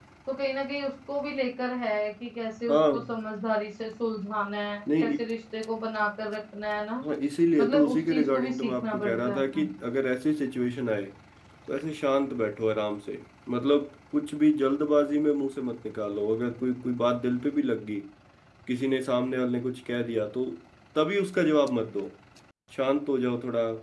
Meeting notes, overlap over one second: present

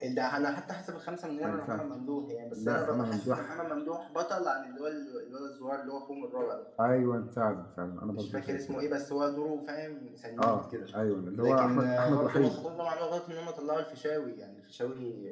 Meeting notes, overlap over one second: present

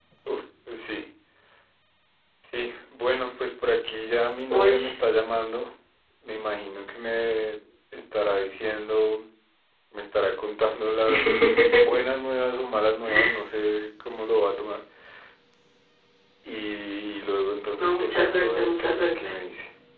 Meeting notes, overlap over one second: present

